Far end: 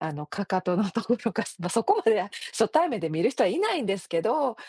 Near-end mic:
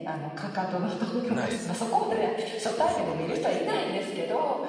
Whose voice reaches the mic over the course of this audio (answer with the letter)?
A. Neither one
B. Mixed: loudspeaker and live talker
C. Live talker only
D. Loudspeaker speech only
B